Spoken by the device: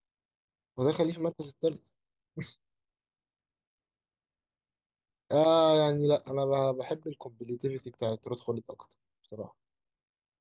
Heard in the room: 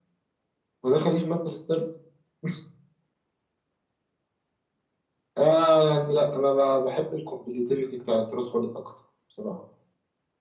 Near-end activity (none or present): none